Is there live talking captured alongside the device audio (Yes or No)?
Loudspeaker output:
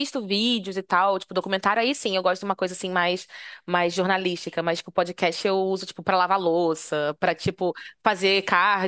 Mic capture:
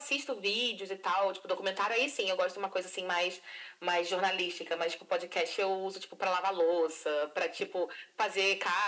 No